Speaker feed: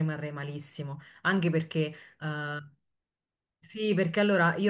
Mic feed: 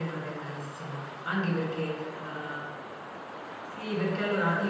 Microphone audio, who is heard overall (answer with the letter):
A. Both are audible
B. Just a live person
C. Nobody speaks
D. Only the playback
D